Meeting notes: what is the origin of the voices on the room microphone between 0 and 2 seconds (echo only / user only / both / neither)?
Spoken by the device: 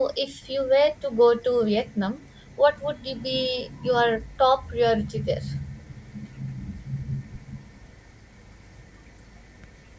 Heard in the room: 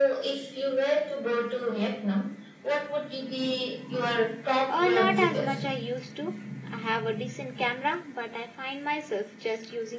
echo only